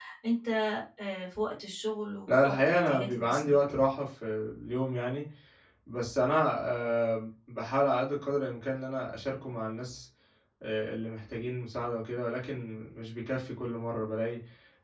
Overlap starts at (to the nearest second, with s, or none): 2 s